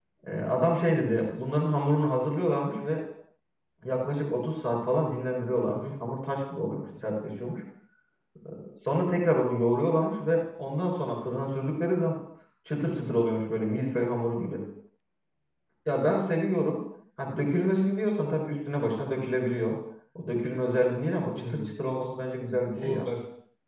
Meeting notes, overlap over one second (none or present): none